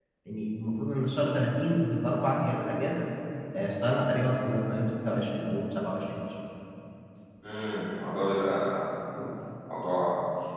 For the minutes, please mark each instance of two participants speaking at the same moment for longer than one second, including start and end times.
none

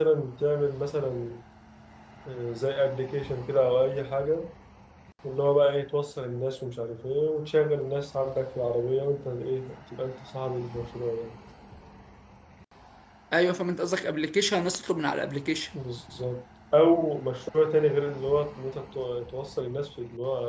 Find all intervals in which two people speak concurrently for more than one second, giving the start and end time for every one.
none

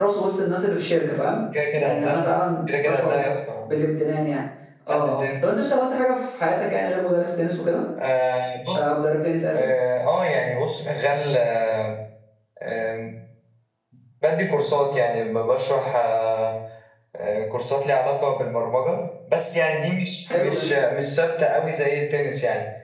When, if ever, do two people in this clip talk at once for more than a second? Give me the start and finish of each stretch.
none

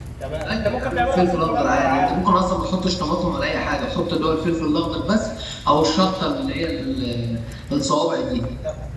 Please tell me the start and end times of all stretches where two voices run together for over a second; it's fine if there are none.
0.5-2.3

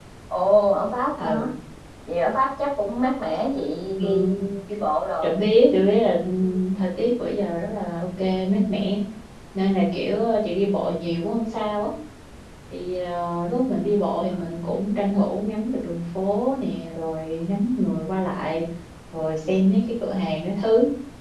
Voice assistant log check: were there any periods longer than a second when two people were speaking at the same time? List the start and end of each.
none

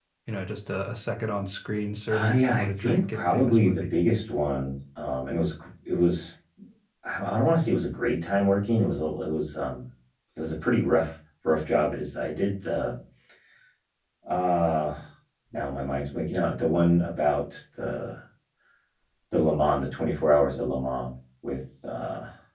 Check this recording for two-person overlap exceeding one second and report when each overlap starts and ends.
2.1-3.8

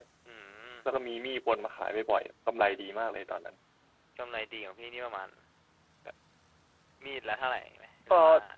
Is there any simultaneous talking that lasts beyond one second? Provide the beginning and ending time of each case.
none

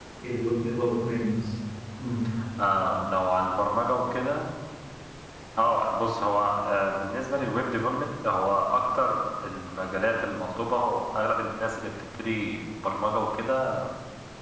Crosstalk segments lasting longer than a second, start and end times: none

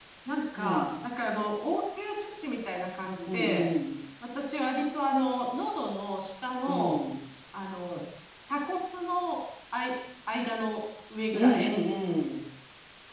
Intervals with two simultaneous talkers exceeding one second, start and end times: none

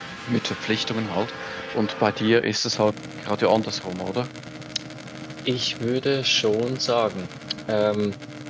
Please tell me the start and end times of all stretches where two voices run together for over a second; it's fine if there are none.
none

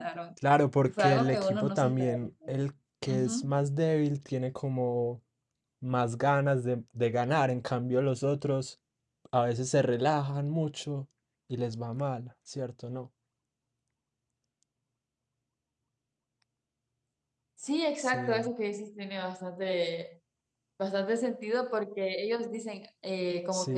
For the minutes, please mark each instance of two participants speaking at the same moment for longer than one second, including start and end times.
0.8-2.2

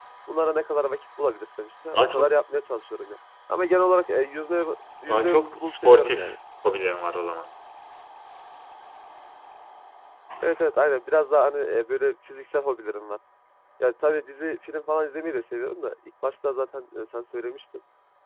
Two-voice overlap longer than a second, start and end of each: 5.1-6.4

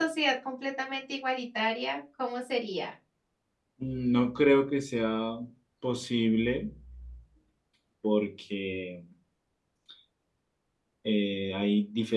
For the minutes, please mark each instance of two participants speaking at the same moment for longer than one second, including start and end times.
none

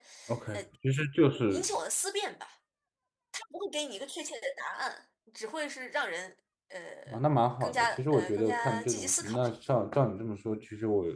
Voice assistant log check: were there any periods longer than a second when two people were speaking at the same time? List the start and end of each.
7.6-9.4

